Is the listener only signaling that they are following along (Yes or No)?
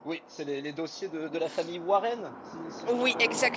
No